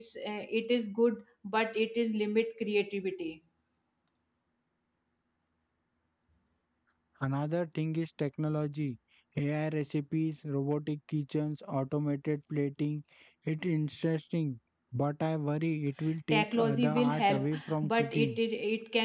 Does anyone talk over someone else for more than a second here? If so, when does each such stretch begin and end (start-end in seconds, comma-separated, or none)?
16.3-18.4